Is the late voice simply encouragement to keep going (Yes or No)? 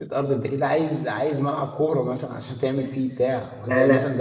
Yes